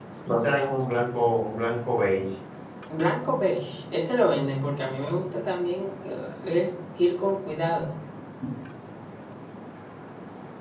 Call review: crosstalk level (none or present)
none